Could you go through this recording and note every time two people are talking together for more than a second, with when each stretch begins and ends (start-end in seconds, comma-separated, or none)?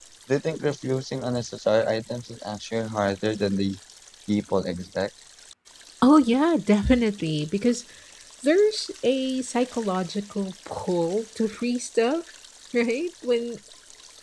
none